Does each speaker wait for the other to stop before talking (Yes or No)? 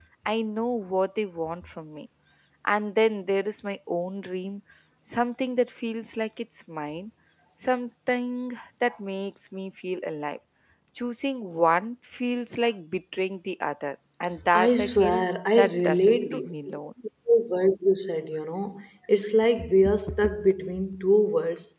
No